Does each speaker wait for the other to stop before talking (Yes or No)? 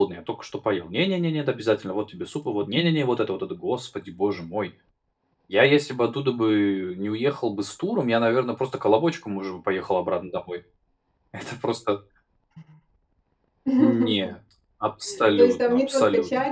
No